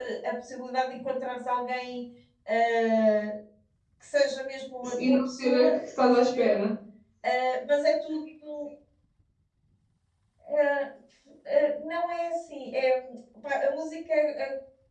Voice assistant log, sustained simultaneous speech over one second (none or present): present